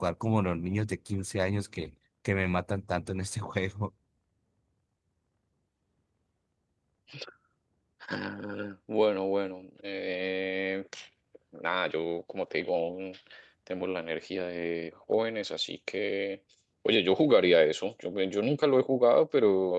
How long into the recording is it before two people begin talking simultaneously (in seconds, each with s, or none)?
none